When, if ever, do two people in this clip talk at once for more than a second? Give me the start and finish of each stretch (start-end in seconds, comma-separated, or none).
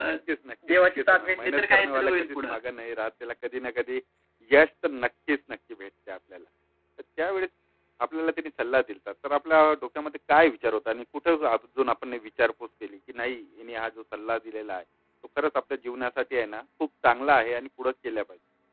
0.7-2.5